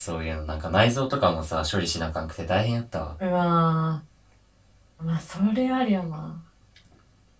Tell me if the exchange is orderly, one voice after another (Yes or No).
Yes